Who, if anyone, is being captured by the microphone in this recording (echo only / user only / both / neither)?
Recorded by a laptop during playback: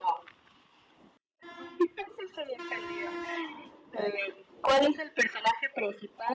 echo only